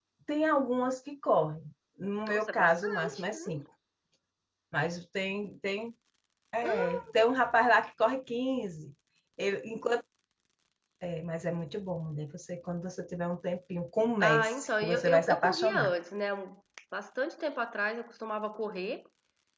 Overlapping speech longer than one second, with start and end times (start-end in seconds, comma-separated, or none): 2.3-3.6, 14.2-15.9